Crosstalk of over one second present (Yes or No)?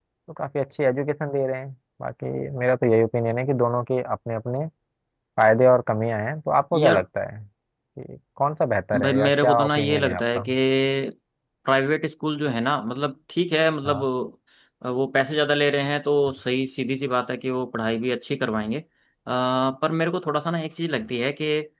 Yes